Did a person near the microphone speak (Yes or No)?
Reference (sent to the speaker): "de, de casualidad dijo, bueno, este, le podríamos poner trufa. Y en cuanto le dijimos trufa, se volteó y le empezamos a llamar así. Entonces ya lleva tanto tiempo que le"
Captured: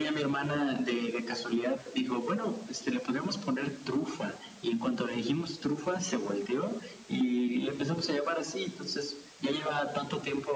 No